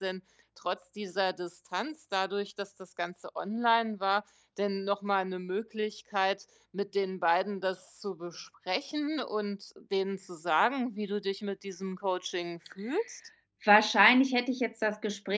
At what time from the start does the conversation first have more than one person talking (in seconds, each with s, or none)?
none